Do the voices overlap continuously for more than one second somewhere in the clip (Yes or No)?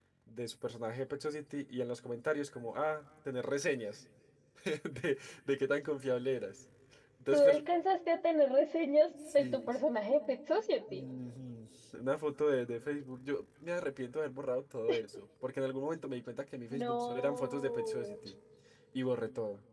Yes